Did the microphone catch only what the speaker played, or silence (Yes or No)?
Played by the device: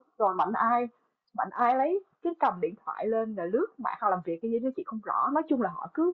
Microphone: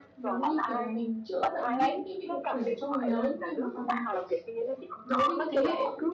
No